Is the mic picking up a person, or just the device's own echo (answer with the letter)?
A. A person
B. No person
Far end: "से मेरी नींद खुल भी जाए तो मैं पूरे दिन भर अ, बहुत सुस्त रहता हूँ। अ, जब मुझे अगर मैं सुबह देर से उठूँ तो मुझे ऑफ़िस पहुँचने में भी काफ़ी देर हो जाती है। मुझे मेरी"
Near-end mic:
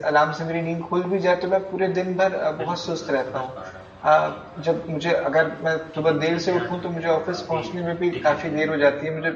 A